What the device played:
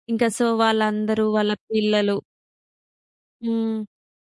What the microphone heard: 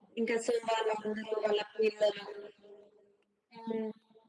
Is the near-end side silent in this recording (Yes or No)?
Yes